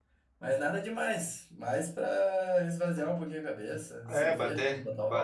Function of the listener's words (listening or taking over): taking over